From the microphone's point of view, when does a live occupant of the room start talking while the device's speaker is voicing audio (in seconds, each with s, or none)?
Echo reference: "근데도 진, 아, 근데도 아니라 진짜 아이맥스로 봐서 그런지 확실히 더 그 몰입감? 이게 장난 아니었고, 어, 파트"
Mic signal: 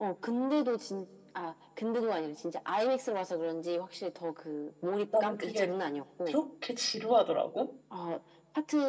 5.1 s